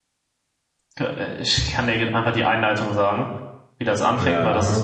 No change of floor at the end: Yes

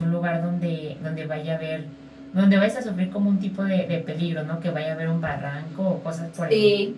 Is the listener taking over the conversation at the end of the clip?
Yes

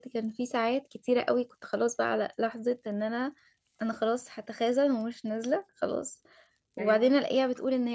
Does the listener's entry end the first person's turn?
No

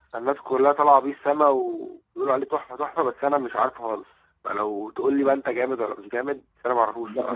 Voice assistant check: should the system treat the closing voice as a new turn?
Yes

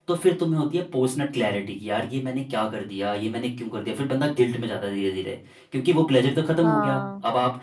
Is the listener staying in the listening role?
Yes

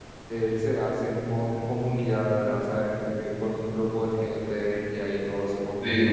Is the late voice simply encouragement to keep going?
Yes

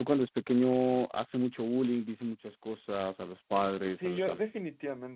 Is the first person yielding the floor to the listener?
Yes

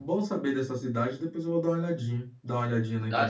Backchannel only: Yes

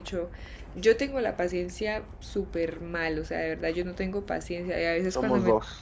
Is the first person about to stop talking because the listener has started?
No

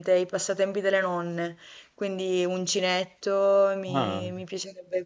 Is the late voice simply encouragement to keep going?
Yes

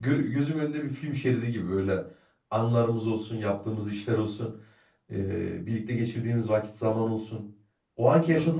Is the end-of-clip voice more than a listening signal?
No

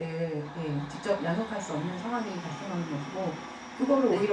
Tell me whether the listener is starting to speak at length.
No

